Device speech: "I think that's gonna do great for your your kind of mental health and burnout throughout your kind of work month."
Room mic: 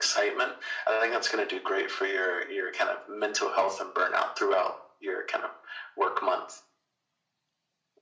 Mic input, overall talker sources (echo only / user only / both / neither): echo only